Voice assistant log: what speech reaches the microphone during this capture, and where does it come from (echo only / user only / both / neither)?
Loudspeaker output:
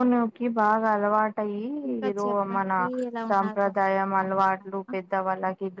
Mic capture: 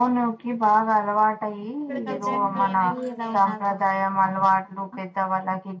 both